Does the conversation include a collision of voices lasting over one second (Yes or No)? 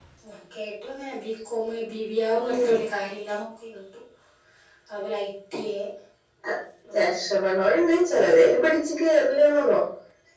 No